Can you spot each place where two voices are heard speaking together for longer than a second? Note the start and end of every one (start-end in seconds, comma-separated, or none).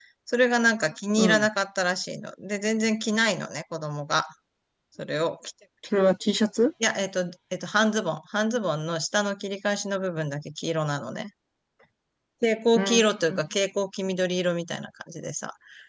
none